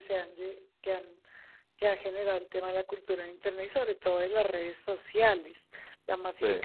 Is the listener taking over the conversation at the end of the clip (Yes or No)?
No